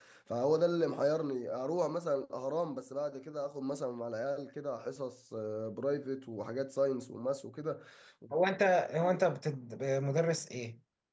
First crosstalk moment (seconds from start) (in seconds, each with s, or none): none